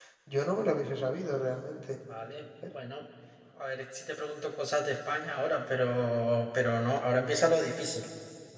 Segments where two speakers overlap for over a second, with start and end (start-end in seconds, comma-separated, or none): none